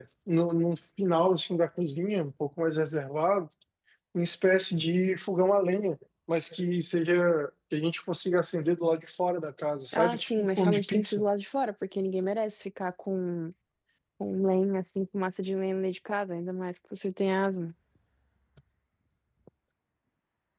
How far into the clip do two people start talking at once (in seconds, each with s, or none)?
9.9 s